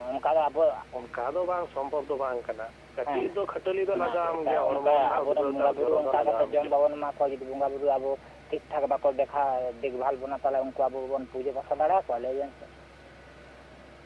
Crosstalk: present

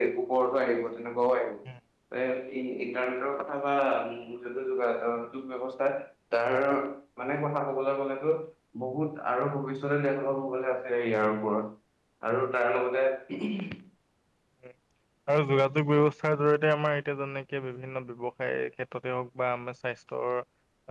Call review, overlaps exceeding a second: none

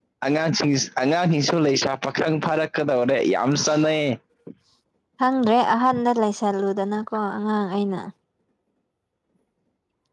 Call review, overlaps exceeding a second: none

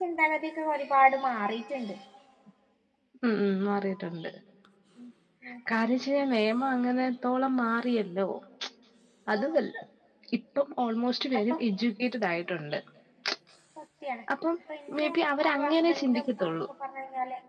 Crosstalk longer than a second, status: present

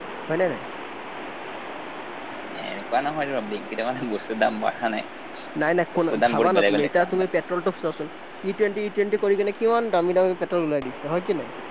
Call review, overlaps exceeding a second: present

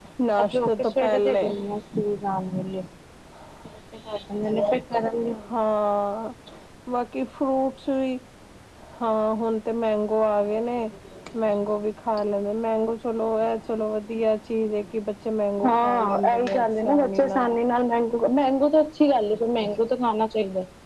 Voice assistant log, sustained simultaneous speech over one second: present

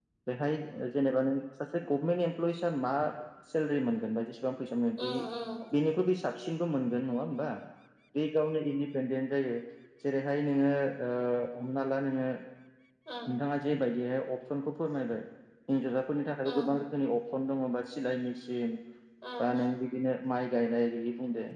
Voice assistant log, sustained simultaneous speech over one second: none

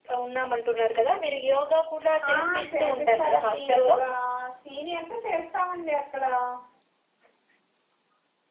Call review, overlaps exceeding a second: present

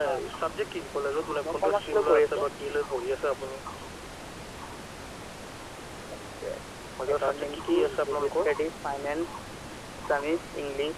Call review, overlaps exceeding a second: present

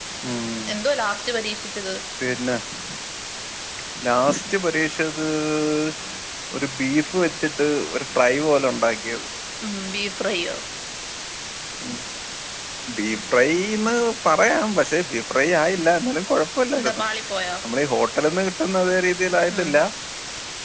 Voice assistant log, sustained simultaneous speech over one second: none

